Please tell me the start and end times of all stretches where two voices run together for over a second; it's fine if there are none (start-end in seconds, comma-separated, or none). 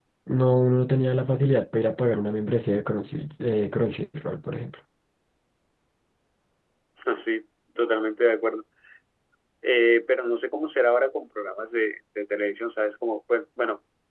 none